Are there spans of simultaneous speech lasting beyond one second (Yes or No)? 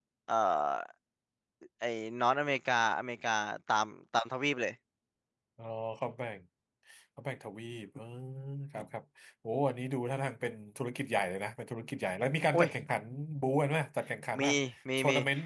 No